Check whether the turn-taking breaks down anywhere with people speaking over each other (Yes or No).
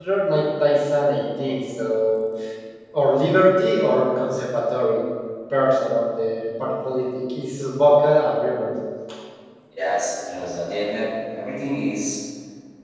No